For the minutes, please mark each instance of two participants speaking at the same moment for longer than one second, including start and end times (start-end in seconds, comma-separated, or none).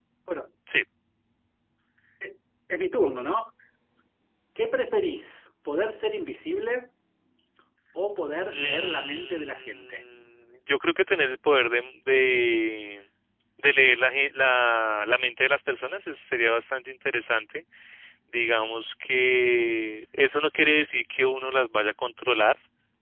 8.5-10.0